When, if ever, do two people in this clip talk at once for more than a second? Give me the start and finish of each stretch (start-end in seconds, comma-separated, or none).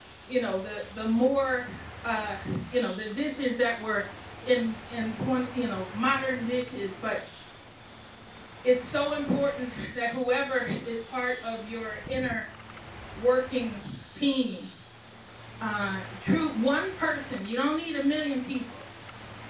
none